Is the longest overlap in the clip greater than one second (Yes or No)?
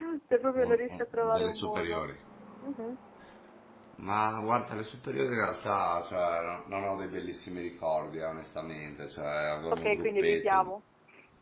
Yes